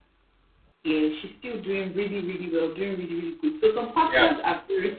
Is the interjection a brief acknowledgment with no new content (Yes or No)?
Yes